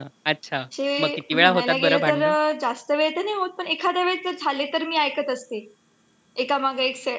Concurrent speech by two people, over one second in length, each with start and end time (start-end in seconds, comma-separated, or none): 1.0-2.3